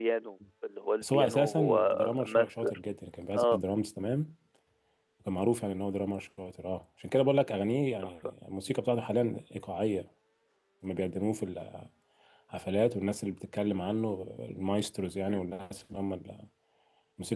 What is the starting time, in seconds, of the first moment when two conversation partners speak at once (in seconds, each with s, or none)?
1.0 s